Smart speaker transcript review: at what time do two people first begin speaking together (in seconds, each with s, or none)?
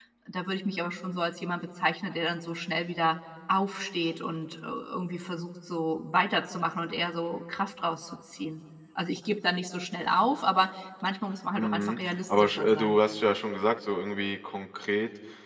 11.6 s